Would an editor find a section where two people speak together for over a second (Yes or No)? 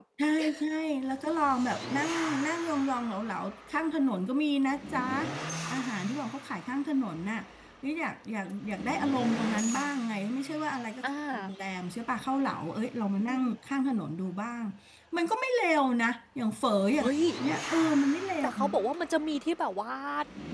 No